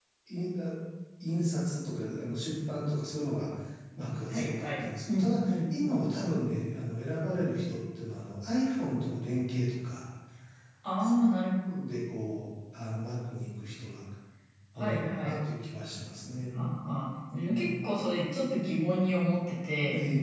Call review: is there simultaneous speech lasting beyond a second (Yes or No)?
Yes